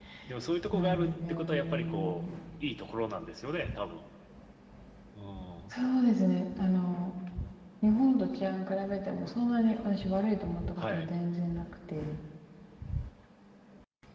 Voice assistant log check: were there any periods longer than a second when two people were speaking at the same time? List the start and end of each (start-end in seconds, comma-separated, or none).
0.7-2.3